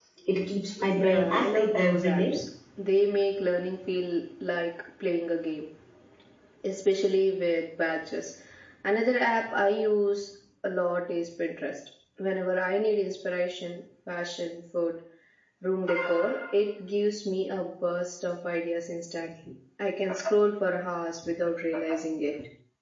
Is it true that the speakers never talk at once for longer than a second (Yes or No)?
No